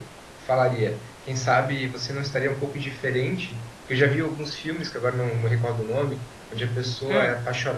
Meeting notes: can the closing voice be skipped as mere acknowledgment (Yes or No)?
Yes